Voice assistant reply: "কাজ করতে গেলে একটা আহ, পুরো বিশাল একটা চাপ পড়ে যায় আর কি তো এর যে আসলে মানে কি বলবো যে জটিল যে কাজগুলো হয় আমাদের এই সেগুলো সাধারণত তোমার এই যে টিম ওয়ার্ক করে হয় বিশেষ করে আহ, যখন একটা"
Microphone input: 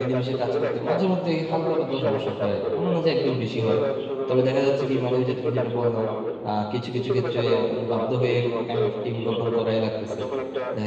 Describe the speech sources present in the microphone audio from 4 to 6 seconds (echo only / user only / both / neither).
both